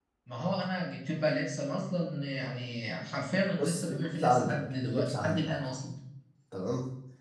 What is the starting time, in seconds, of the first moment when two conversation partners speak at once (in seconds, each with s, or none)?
3.6 s